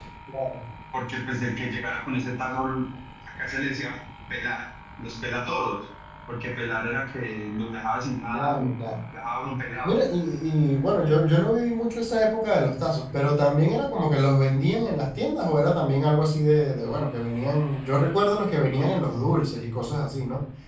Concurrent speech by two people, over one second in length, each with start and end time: none

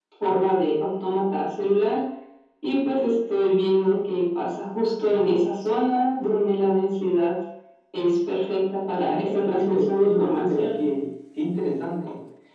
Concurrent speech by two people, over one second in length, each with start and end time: 9.0-10.8

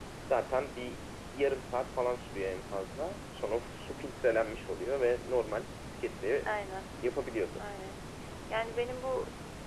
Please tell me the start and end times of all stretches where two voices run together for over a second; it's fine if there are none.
none

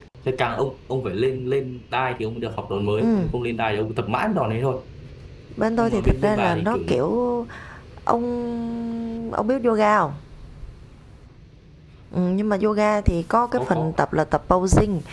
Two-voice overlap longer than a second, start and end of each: 5.8-7.0

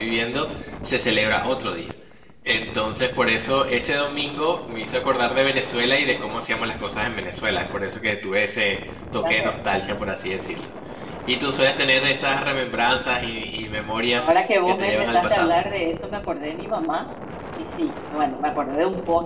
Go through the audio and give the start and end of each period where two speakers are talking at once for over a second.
14.2-15.5

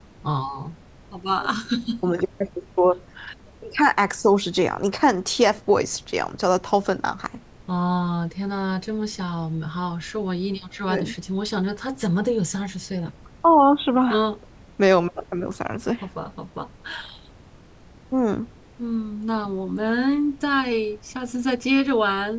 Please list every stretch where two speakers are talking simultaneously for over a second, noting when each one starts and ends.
none

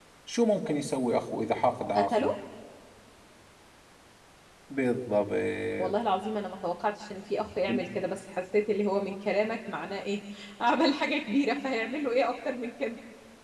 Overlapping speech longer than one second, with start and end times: none

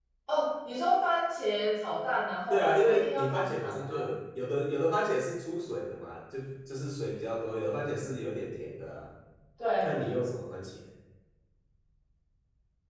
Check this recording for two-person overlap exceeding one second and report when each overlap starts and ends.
2.5-4.1

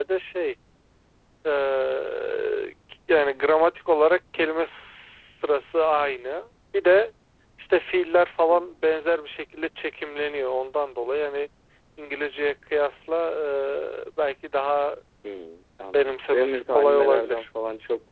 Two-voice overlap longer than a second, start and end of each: 15.9-17.4

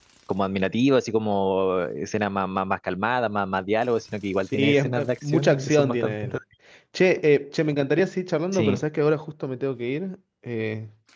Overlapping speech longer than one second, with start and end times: 4.5-6.3

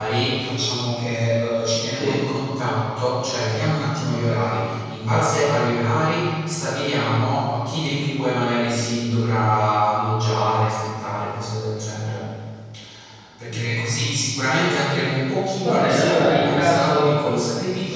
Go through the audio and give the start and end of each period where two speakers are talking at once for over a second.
15.6-17.1

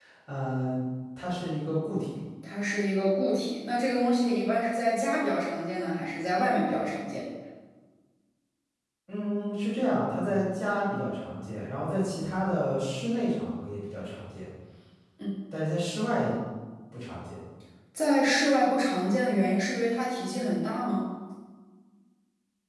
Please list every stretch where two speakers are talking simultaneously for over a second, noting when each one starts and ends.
none

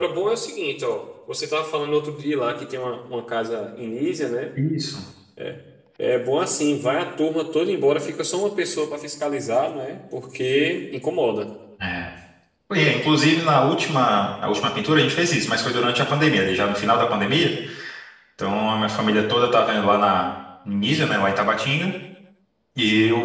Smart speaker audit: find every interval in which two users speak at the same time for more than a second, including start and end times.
none

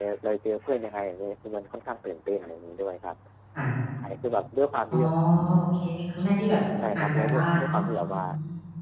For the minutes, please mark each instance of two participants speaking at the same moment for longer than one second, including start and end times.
6.9-8.2

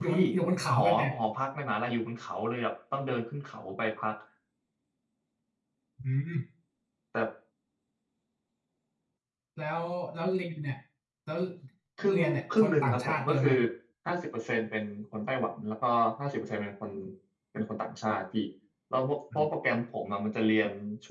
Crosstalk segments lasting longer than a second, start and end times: 12.1-13.5

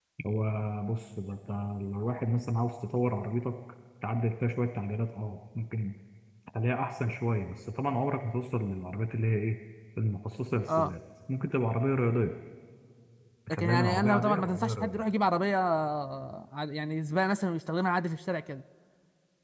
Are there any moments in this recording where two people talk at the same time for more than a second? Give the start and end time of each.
13.5-15.0

